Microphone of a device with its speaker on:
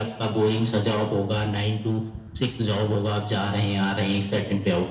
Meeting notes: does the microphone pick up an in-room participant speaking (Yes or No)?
No